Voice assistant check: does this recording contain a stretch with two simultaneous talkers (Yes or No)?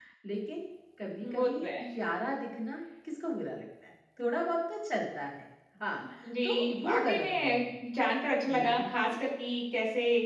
Yes